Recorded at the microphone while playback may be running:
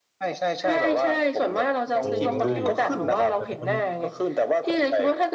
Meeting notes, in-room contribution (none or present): present